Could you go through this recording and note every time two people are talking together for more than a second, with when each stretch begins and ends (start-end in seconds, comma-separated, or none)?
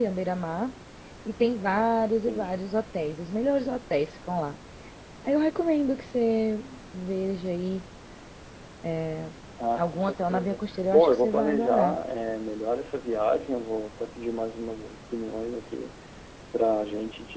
9.8-11.9